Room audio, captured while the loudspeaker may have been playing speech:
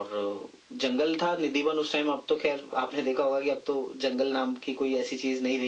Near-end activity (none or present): none